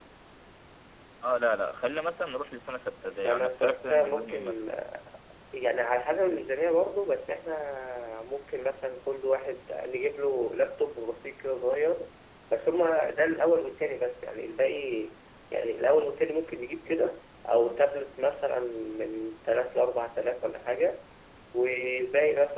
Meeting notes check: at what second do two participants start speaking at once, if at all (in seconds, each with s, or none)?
3.0 s